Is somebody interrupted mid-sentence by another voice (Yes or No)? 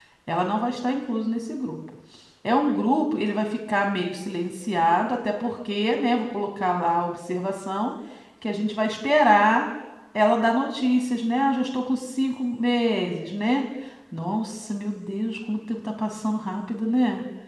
No